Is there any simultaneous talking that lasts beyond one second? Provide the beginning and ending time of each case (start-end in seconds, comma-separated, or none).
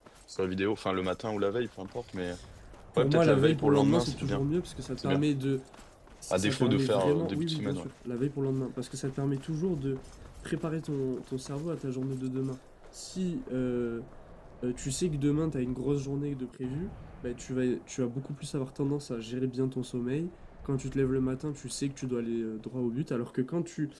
3.0-4.4, 6.3-7.9